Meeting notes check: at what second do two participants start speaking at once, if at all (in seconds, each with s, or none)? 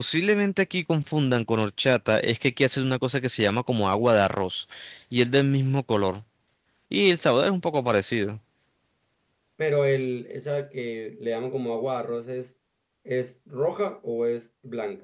none